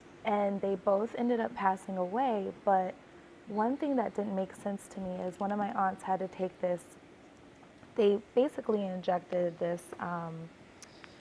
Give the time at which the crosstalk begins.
none

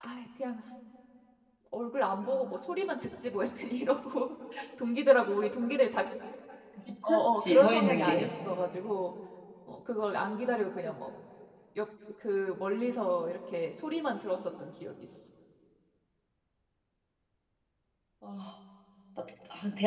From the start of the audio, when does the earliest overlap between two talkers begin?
7.0 s

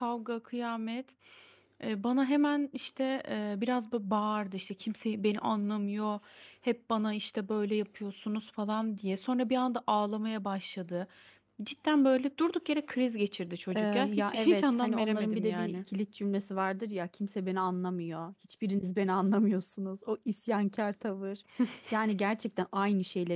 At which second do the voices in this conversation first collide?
13.8 s

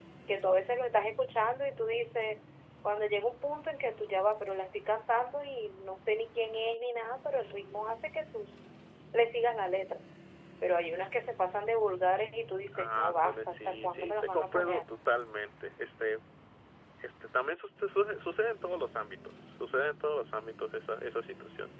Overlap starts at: 12.8 s

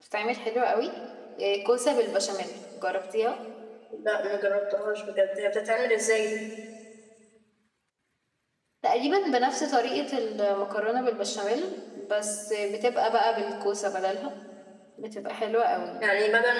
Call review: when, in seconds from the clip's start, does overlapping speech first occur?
none

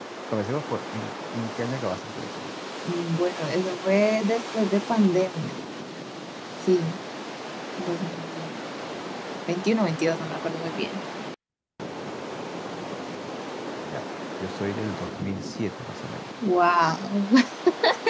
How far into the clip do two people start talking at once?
none

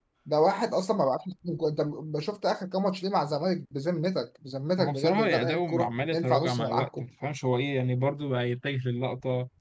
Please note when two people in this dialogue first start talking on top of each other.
4.8 s

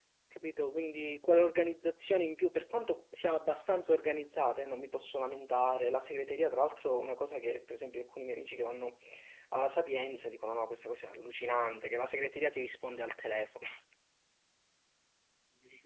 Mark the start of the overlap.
none

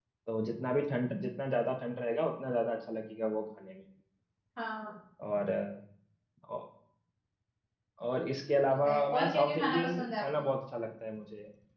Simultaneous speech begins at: 8.5 s

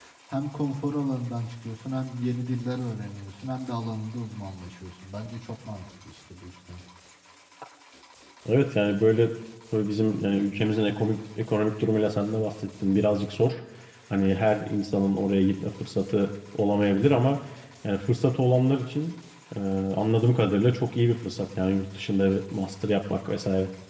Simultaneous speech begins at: none

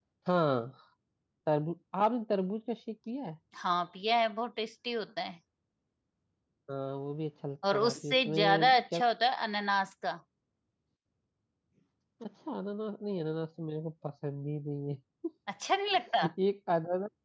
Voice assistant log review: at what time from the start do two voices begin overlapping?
7.7 s

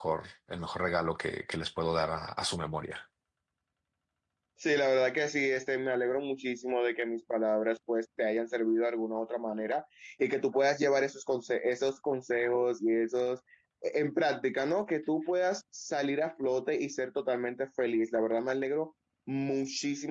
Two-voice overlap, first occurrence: none

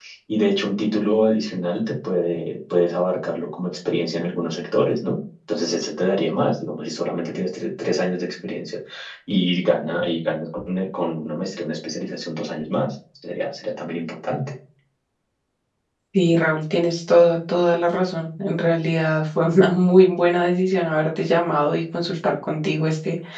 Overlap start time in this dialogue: none

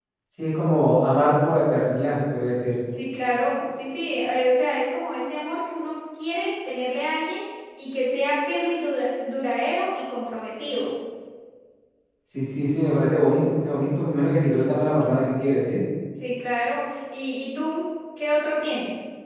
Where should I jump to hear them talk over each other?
none

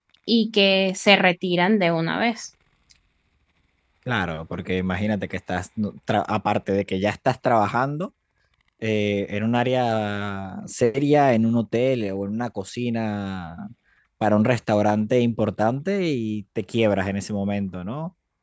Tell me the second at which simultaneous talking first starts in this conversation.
none

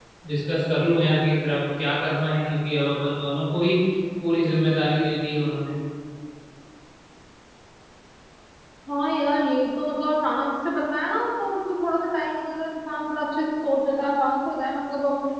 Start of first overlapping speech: none

